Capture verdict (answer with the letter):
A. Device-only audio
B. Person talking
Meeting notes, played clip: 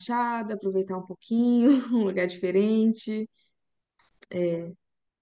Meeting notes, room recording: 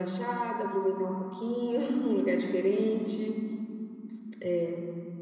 A